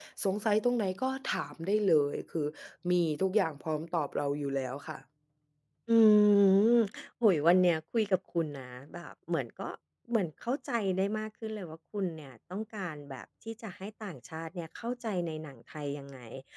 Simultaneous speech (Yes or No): No